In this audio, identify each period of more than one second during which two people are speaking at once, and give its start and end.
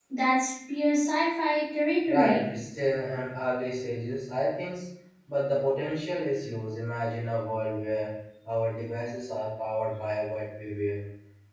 none

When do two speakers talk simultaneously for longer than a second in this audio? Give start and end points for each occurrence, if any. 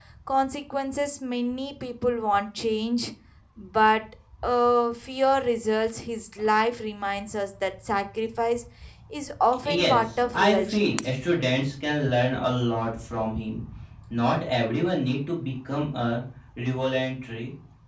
9.6-11.0

